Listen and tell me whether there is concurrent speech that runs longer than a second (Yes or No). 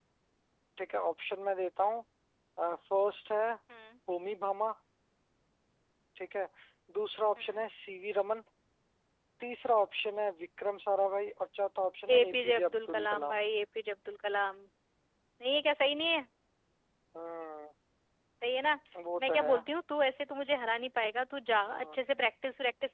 Yes